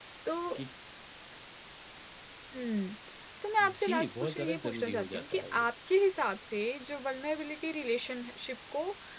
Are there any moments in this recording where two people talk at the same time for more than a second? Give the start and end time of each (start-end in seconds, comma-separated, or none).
3.8-5.6